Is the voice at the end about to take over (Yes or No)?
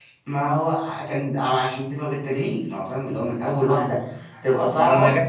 Yes